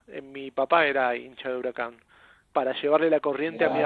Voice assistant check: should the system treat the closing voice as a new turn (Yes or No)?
No